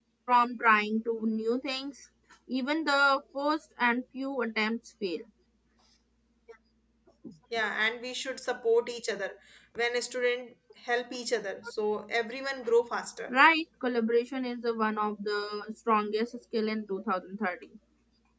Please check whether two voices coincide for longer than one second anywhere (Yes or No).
No